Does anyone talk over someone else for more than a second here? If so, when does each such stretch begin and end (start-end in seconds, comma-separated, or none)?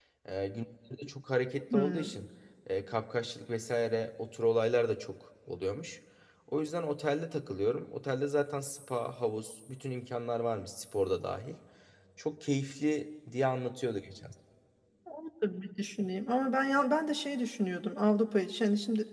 none